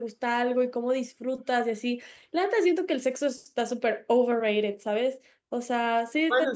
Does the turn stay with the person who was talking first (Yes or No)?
No